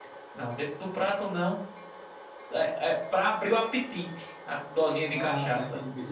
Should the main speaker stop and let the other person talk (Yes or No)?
Yes